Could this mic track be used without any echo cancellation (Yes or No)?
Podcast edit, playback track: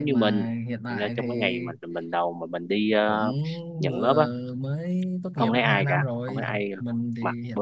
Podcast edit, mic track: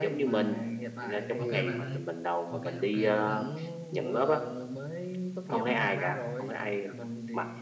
No